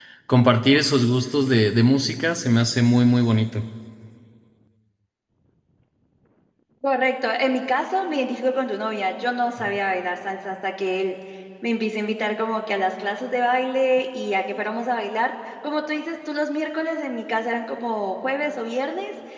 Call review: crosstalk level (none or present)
none